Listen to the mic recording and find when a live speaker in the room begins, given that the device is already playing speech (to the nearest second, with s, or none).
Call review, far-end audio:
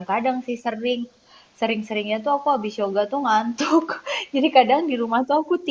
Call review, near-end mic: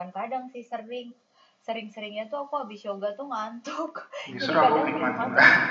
4 s